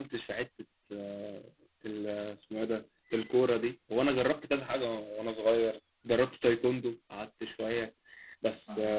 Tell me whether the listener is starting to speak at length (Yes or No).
No